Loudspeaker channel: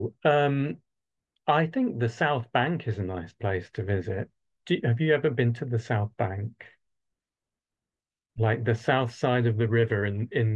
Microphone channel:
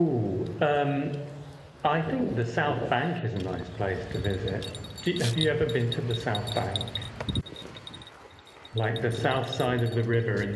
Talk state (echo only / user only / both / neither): echo only